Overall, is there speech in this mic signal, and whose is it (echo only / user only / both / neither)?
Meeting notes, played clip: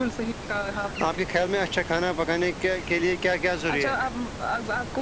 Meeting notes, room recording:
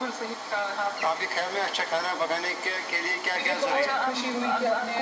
both